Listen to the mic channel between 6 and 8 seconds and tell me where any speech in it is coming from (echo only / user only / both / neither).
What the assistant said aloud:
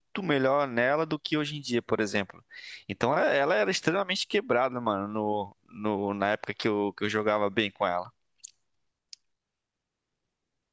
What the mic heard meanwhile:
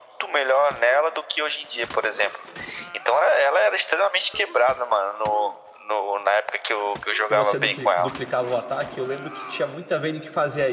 both